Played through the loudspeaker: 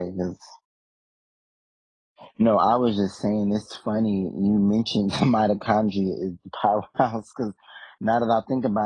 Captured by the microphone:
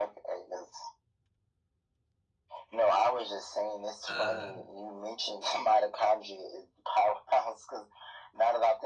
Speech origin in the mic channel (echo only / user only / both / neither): both